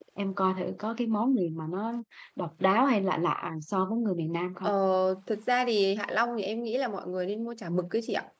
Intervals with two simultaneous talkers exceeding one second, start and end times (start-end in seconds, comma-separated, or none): none